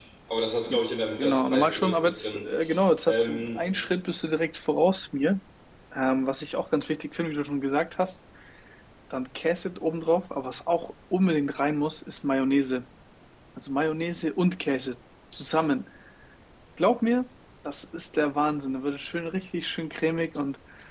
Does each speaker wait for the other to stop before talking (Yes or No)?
No